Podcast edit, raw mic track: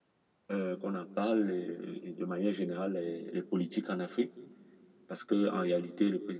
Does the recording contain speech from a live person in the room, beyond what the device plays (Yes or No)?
Yes